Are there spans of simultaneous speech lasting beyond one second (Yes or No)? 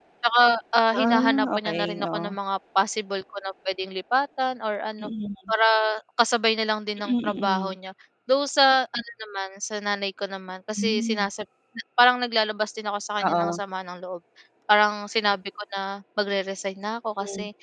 Yes